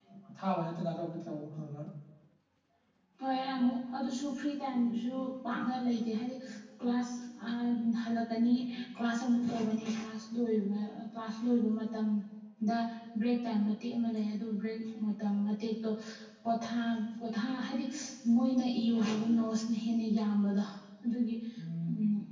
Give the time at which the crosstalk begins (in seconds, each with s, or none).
none